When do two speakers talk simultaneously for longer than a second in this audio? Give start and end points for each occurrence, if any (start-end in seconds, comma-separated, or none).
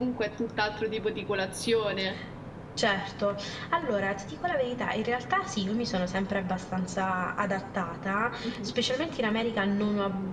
none